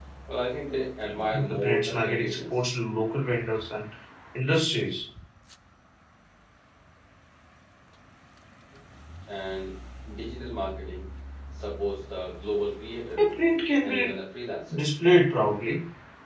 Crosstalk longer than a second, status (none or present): present